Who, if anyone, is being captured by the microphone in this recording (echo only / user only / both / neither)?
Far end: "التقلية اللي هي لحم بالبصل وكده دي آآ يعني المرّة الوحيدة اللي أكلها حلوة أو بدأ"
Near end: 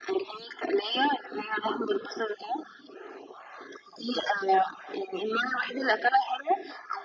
echo only